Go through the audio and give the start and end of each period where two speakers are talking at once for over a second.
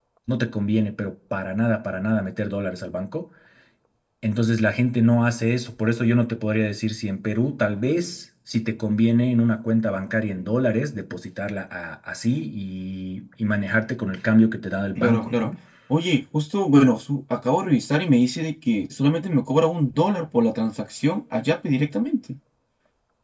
none

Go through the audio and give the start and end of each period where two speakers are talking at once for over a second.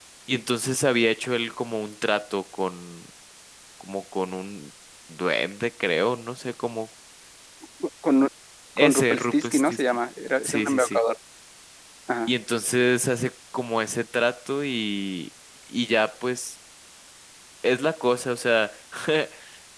8.8-10.0

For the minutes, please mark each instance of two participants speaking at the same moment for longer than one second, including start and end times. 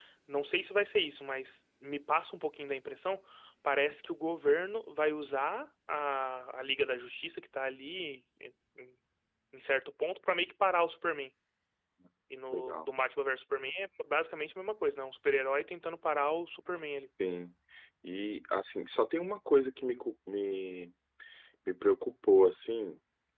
none

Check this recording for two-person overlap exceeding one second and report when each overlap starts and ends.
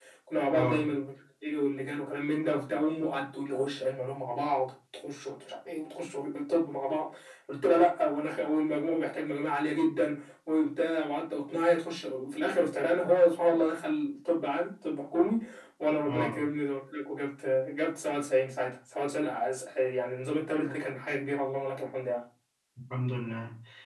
none

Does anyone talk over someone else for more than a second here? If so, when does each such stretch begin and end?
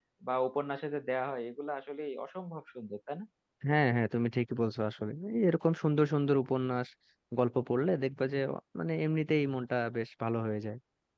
none

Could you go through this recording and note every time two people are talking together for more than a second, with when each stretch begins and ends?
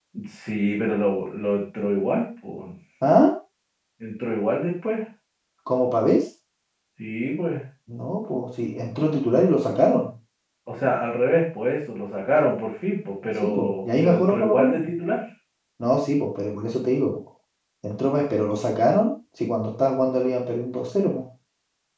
13.4-14.9

